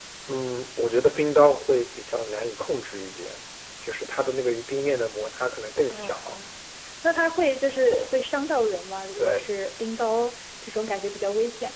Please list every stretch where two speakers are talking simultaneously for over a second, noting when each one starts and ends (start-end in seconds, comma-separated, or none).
none